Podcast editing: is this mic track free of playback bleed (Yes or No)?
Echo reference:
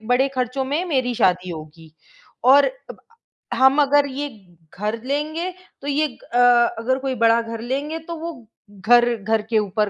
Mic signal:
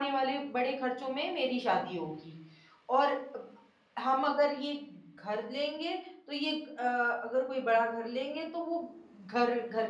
No